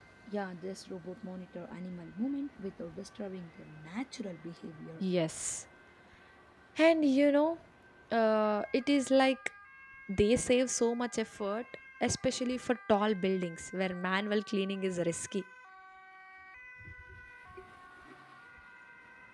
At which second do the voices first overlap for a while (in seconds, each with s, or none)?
none